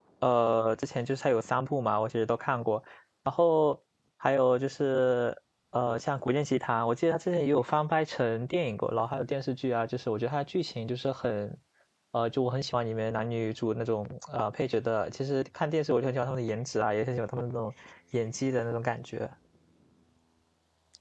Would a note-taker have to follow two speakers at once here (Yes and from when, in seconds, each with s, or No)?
No